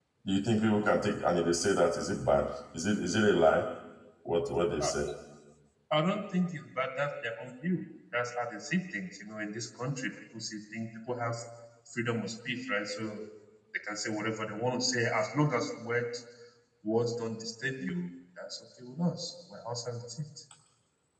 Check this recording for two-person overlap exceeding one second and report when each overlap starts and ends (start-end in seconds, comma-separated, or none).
none